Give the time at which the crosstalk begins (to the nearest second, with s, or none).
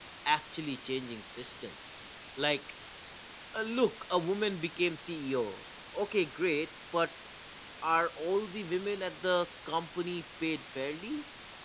none